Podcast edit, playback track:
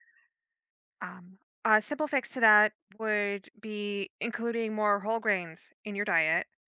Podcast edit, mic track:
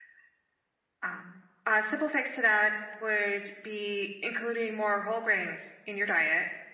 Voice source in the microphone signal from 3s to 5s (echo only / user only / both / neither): echo only